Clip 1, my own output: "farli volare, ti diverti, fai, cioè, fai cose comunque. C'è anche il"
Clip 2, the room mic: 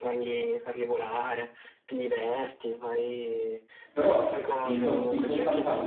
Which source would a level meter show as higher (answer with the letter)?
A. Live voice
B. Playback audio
A